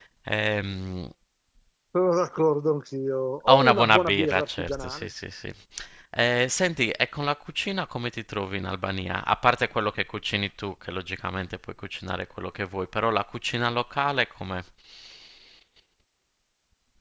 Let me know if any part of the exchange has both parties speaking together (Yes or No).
Yes